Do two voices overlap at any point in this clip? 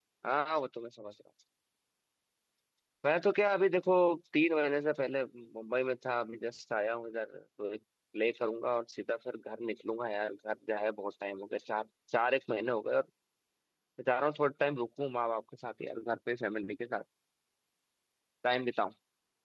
No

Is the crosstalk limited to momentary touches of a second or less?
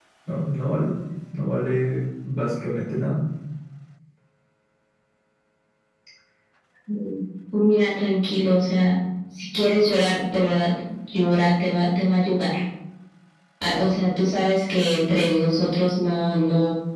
Yes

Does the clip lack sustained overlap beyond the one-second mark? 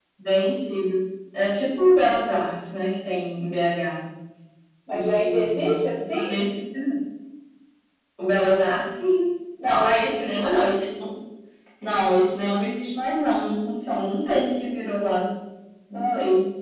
No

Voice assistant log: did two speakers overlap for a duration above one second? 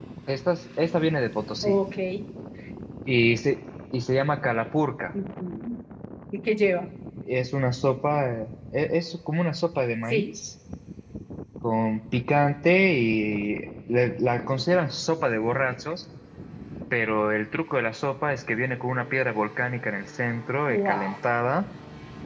No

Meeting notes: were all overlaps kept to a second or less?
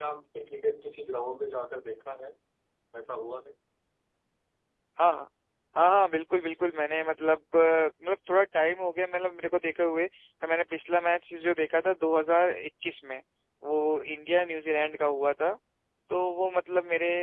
Yes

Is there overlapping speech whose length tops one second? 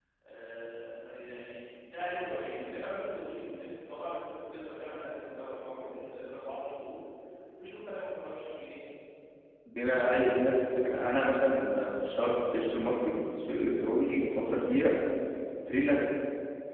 No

